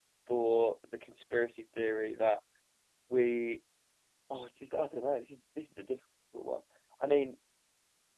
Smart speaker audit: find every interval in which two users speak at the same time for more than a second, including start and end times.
none

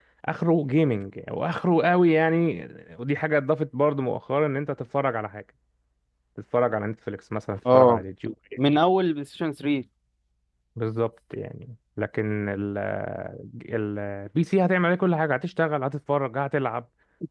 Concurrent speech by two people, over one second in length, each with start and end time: none

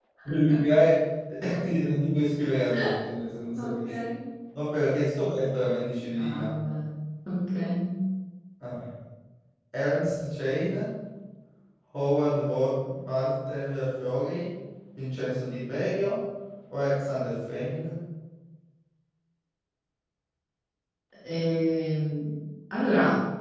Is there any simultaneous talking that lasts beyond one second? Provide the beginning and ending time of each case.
none

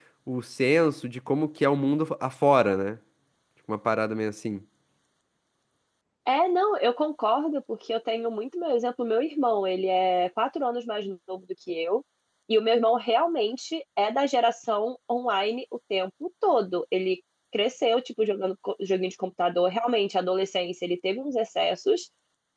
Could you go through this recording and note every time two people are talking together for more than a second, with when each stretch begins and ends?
none

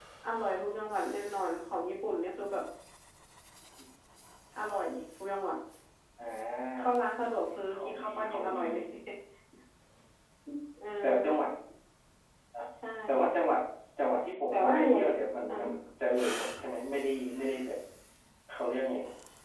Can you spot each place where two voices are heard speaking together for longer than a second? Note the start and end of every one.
7.3-8.6

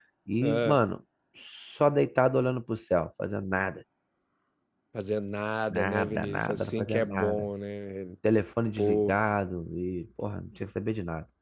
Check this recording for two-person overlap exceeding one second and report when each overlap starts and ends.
5.7-7.5

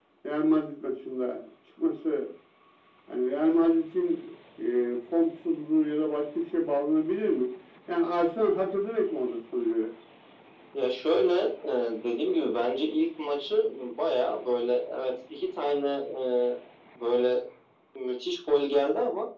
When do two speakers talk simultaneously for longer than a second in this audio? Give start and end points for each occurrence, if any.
none

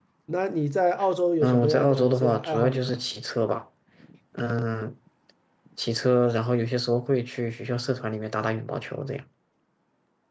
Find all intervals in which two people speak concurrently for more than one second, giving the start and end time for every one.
1.4-3.0

